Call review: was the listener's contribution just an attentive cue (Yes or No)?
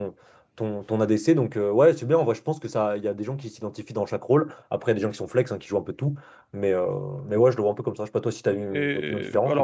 No